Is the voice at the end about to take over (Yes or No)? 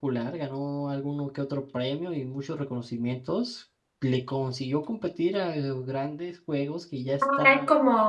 Yes